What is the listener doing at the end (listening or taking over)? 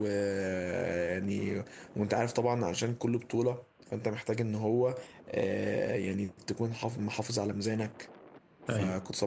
listening